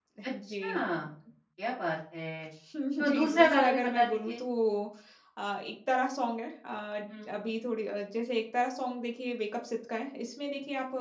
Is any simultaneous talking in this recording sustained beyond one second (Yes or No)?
Yes